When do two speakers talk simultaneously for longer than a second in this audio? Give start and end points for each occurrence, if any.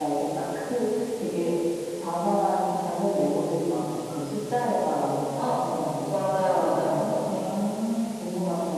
6.1-7.5

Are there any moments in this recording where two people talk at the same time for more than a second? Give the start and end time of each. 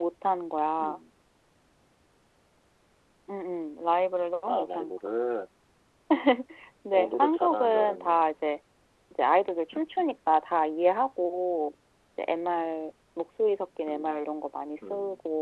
6.9-8.2

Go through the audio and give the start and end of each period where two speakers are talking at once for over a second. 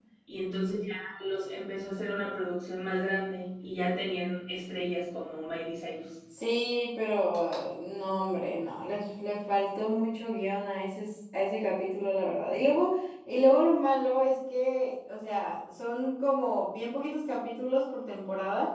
none

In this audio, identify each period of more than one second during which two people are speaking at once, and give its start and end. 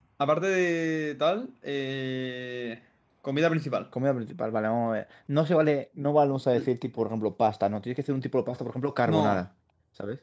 none

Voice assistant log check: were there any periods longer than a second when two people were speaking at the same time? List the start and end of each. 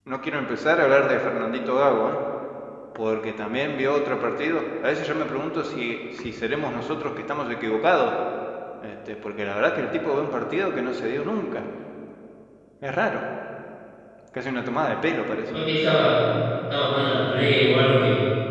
none

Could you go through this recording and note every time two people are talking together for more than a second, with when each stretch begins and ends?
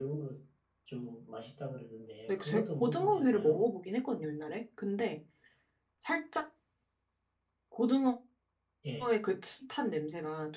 2.3-3.6

